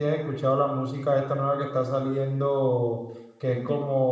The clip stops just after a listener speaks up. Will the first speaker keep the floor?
Yes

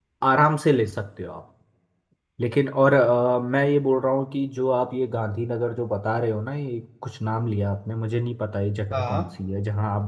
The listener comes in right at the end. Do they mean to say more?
No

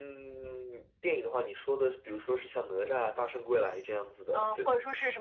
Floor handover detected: Yes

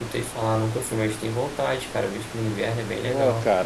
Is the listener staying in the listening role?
No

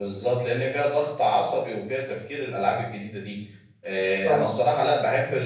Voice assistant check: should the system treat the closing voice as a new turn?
No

